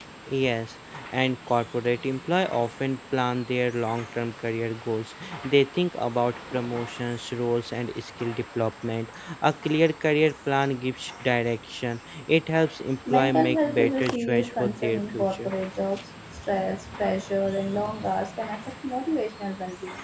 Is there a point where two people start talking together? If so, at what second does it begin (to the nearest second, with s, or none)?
13 s